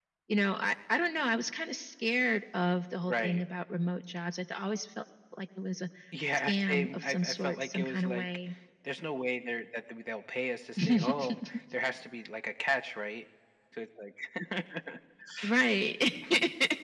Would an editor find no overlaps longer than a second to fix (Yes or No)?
No